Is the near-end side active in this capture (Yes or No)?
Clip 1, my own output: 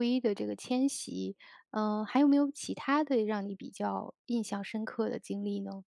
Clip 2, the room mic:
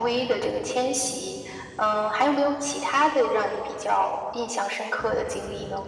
No